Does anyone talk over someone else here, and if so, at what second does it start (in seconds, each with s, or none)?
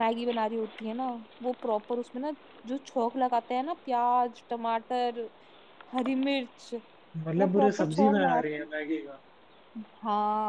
7.4 s